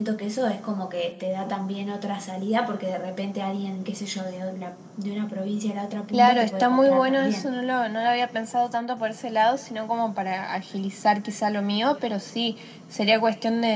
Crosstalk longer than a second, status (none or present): present